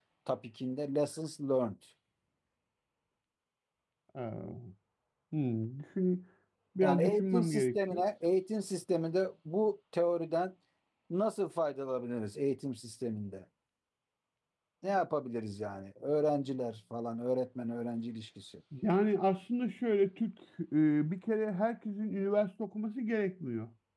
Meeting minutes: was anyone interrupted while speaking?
Yes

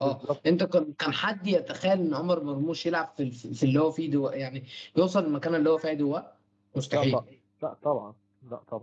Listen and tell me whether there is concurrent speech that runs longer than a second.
No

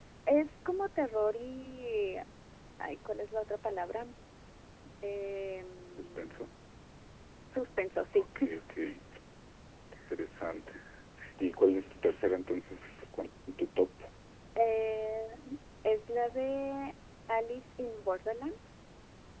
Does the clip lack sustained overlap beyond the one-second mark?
Yes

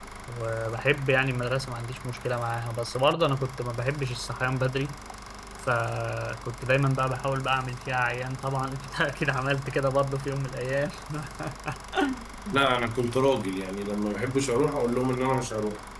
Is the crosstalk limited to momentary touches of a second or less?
Yes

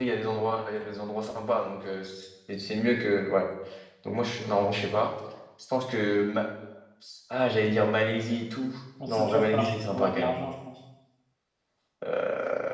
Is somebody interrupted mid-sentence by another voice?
Yes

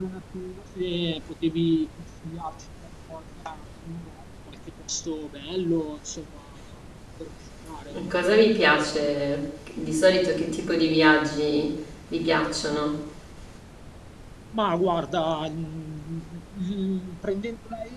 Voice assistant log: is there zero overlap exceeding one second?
Yes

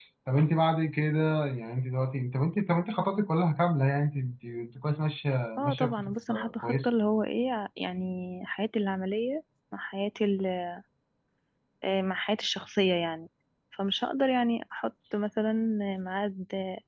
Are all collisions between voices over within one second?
No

